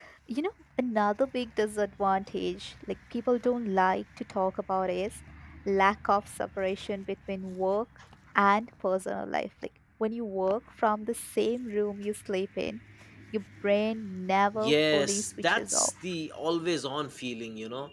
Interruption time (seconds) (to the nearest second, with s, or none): 15 s